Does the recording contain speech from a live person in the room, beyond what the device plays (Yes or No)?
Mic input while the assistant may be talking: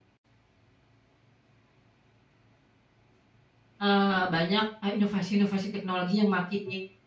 Yes